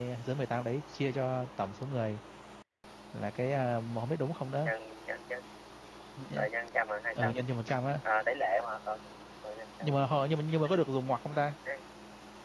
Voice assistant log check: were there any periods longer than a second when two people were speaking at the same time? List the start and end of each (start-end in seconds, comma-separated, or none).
none